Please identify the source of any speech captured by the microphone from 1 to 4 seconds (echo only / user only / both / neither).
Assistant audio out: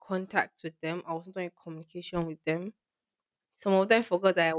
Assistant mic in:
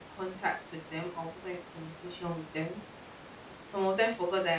echo only